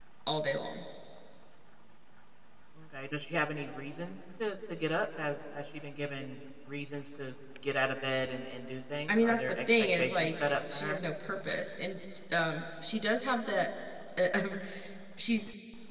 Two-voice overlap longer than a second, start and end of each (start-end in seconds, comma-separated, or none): 9.1-11.0